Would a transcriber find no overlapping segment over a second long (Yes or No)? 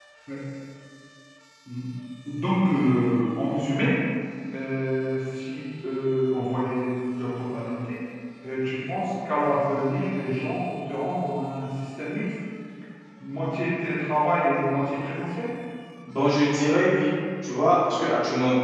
Yes